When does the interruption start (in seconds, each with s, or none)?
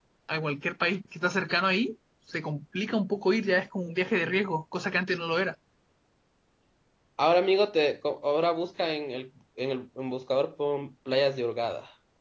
none